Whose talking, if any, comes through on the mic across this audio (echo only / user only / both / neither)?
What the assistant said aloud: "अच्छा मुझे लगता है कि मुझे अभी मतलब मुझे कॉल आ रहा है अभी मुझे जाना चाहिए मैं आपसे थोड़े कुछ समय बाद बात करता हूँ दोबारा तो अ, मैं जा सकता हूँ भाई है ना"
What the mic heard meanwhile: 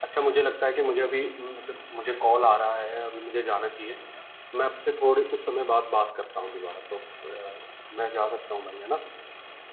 echo only